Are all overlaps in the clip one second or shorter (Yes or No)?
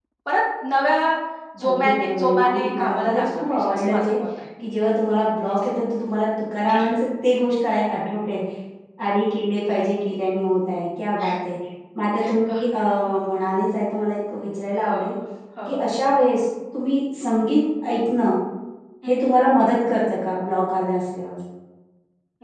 No